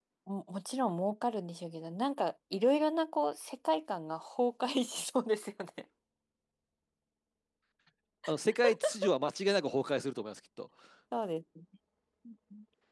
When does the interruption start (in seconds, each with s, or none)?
none